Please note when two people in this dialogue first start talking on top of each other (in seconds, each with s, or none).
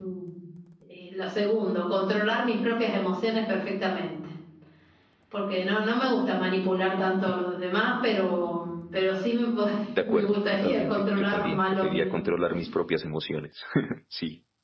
10.0 s